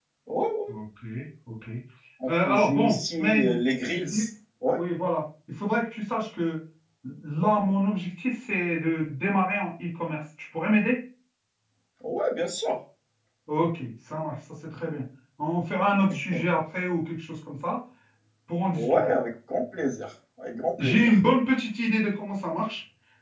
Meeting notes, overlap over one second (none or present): present